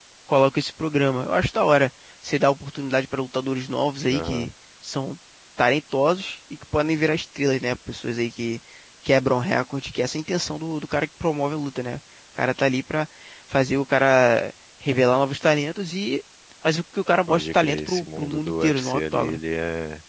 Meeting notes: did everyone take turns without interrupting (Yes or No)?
No